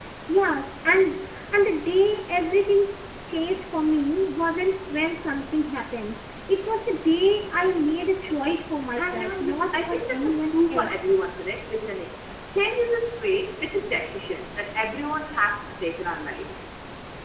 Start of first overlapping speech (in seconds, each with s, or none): 8.9 s